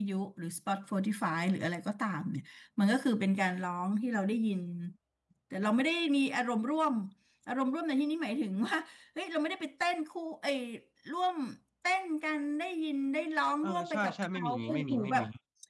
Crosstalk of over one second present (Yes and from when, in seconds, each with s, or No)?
Yes, from 13.6 s